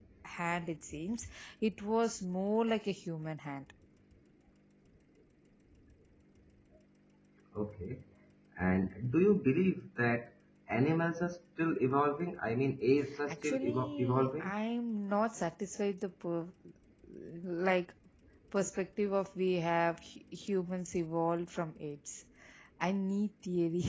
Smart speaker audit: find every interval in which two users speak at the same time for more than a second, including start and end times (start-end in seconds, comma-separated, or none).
13.3-14.5